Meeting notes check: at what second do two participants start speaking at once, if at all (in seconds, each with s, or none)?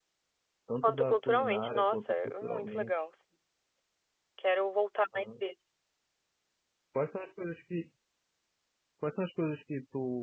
0.8 s